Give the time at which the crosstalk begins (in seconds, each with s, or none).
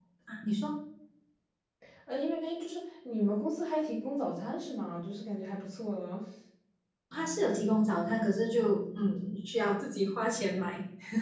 none